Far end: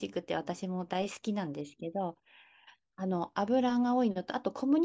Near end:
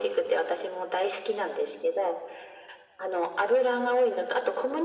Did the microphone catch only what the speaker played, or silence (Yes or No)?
Yes